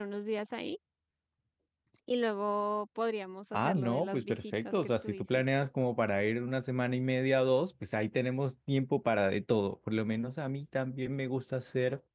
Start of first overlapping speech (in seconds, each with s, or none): 3.5 s